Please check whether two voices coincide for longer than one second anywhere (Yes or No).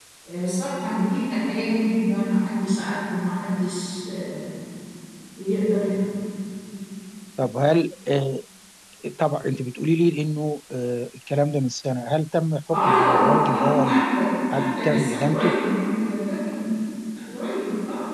Yes